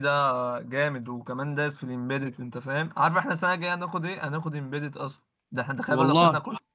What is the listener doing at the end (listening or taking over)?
listening